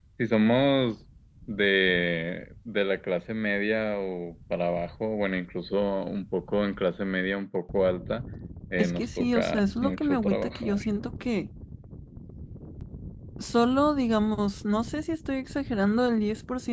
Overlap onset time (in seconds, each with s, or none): 8.8 s